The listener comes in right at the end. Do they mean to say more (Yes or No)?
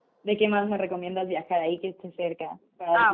Yes